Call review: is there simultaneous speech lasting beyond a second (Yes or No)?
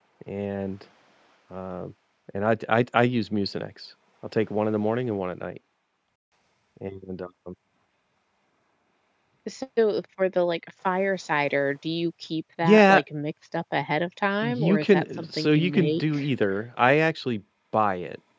Yes